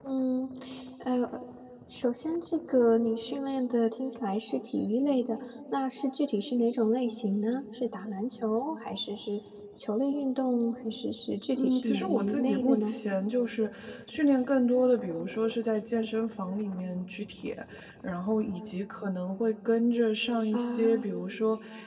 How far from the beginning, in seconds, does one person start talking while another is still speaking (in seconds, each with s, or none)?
11.6 s